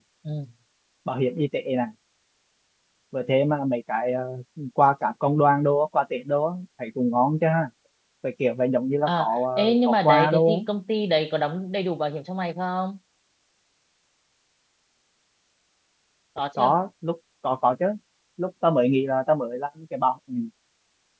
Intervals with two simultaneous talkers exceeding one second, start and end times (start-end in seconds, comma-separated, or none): 9.1-10.6